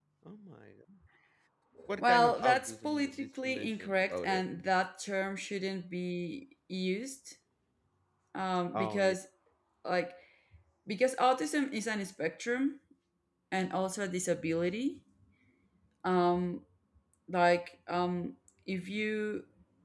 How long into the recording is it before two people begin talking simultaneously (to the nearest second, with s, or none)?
2 s